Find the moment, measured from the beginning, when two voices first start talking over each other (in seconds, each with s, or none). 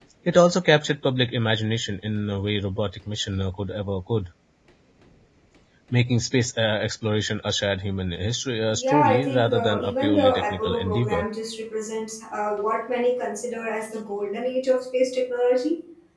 8.7 s